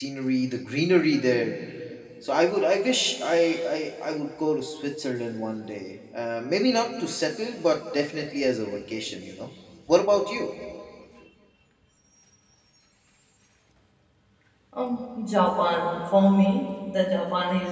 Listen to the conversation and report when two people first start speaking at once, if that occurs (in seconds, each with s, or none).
none